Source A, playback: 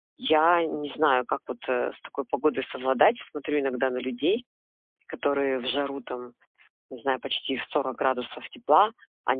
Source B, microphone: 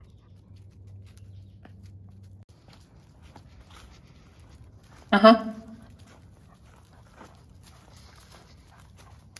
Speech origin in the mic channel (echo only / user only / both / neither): user only